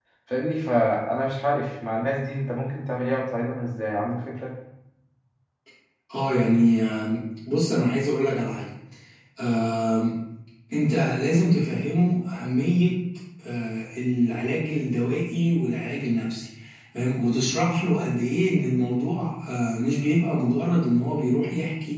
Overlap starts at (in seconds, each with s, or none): none